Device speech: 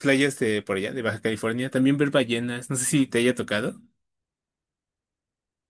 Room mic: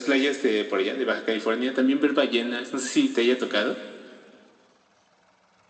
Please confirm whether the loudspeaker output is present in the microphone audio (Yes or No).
Yes